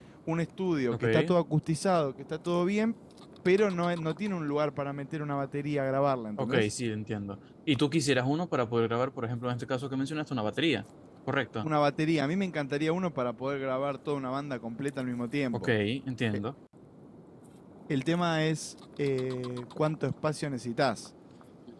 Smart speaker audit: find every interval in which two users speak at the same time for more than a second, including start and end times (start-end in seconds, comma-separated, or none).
none